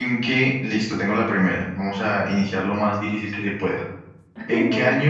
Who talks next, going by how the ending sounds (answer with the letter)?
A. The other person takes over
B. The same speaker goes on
B